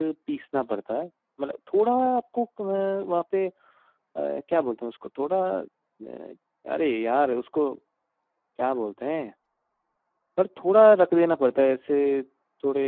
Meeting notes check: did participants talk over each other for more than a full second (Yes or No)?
No